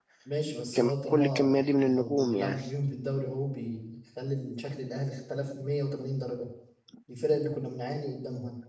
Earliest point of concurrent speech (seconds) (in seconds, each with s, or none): 0.8 s